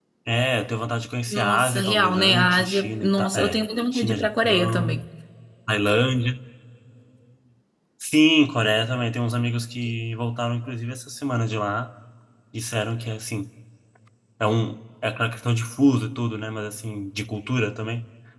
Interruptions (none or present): present